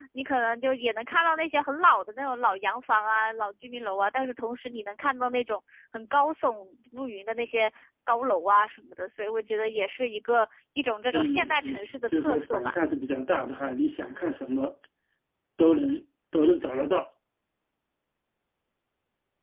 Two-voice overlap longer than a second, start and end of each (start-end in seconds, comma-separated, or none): 11.1-12.8